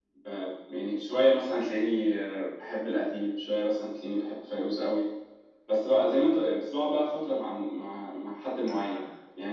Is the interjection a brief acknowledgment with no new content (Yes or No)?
Yes